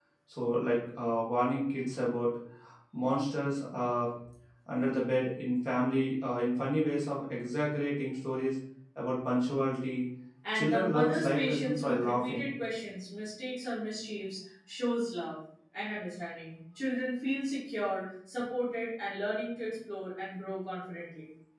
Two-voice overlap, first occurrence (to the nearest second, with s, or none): 11 s